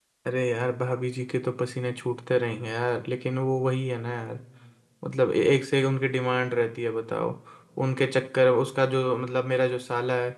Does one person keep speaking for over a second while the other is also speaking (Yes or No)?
No